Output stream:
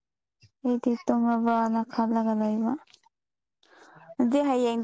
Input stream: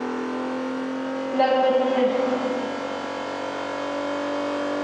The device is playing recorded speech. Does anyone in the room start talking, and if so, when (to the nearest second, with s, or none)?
1 s